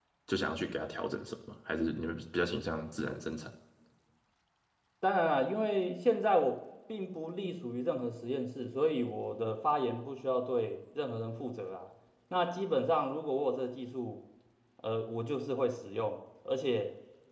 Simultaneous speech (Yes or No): No